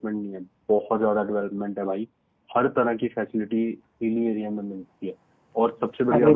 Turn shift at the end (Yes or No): Yes